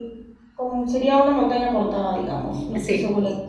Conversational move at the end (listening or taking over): listening